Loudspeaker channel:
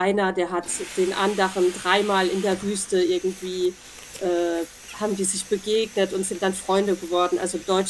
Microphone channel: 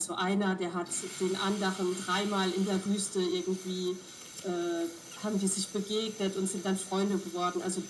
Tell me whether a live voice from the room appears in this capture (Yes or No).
No